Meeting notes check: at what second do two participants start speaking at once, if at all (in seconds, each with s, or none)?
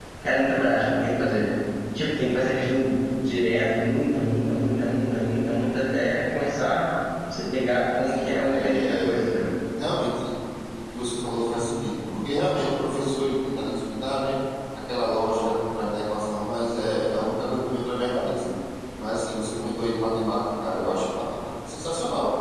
8.1 s